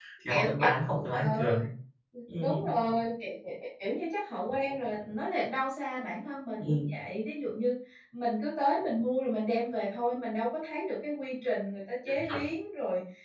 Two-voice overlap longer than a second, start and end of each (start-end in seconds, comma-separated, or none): none